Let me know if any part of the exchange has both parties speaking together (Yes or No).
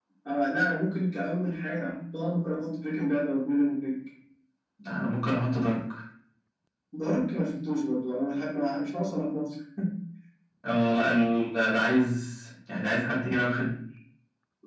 No